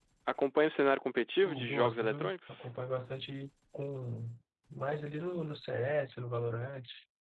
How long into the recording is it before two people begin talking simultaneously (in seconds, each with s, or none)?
1.4 s